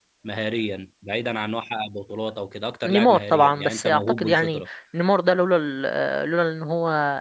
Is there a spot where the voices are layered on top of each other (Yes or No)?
Yes